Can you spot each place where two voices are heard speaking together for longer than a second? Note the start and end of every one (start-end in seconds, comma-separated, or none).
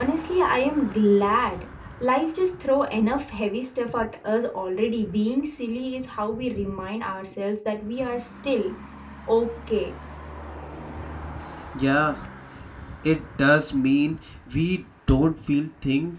none